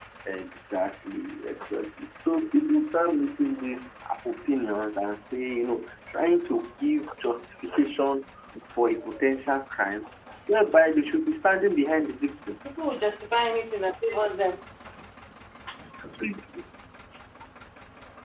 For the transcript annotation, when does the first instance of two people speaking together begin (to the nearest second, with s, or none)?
none